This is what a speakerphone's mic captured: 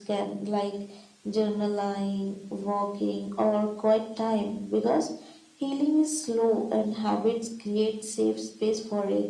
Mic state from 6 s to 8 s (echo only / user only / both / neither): echo only